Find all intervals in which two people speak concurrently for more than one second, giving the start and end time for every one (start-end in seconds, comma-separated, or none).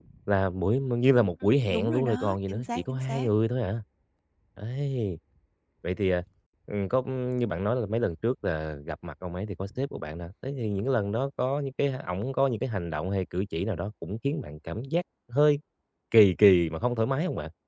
1.4-3.3